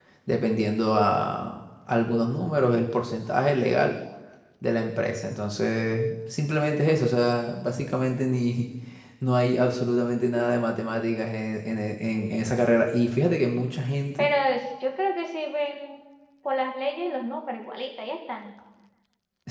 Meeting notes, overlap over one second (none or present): none